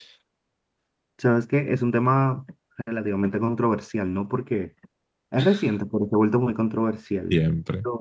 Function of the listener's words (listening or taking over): taking over